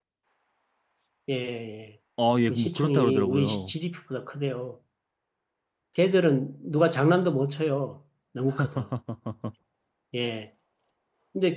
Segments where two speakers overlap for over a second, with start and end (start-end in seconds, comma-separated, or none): 2.5-3.7